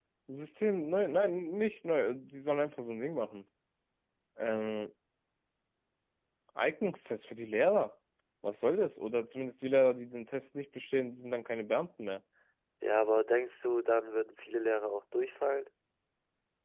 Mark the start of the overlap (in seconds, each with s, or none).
none